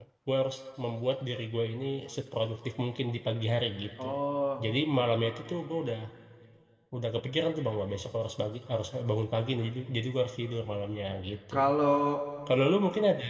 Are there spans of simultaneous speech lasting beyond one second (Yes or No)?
No